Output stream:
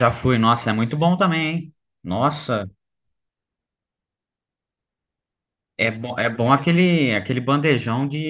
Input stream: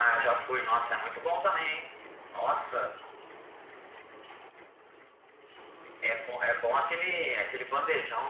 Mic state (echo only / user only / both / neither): echo only